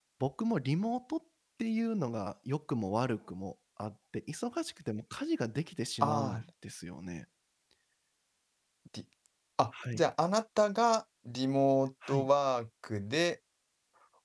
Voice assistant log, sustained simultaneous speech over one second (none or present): none